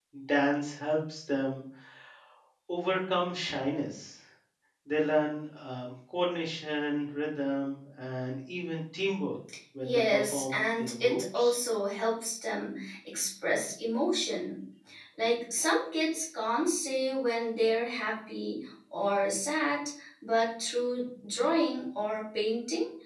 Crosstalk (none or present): present